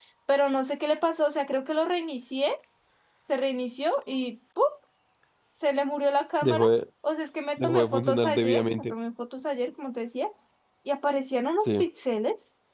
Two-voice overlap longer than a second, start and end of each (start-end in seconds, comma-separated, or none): 7.6-8.9